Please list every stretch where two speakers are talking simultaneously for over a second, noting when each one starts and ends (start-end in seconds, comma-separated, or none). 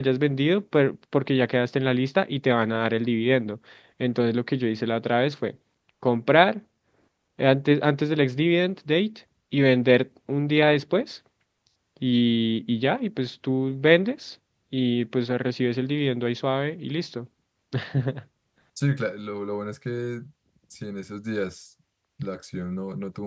none